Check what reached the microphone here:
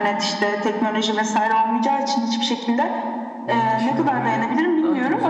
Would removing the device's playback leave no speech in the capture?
No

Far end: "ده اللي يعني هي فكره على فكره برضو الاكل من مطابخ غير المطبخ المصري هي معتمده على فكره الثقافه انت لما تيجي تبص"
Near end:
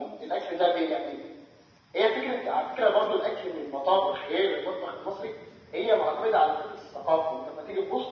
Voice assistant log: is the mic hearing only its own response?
Yes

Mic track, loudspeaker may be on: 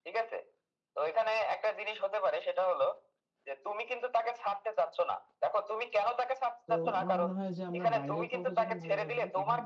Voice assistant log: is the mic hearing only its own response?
No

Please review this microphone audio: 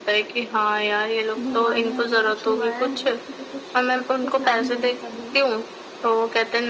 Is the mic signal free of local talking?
No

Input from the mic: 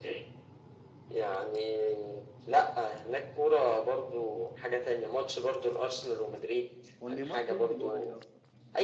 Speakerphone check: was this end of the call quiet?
No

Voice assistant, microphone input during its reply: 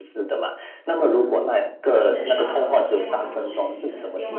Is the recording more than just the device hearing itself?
Yes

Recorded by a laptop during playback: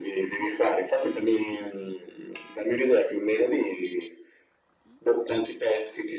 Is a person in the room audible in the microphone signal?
No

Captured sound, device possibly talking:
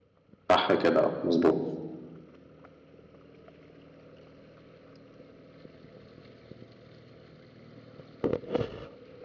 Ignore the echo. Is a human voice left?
Yes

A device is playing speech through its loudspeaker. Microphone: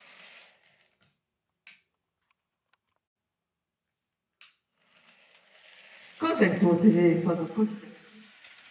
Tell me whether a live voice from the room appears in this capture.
Yes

